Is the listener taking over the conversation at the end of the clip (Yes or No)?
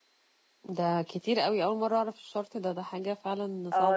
Yes